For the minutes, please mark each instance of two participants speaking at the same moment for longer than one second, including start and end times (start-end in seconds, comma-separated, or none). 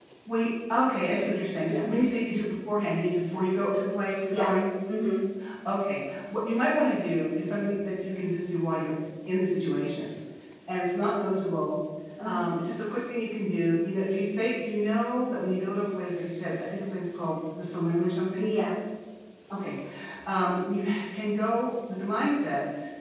none